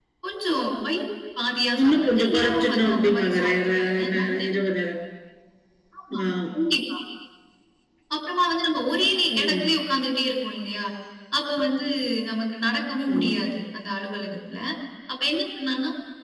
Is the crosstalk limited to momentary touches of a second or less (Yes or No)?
No